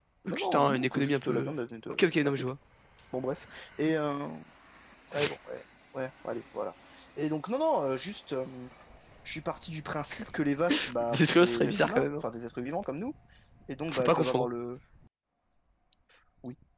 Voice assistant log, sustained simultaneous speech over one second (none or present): present